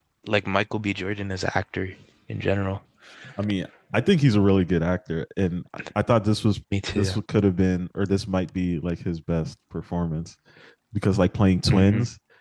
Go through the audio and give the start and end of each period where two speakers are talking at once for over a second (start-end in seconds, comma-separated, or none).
none